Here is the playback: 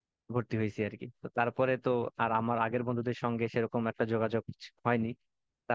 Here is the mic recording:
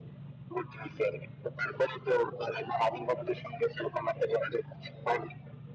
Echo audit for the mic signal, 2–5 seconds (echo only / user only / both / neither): echo only